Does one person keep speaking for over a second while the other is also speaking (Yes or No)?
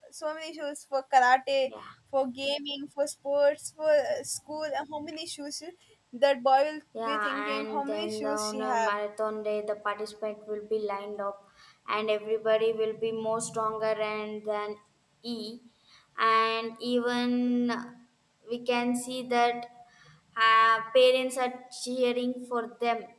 Yes